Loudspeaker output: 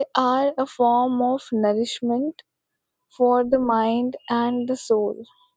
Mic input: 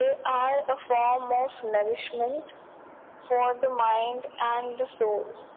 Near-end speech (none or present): none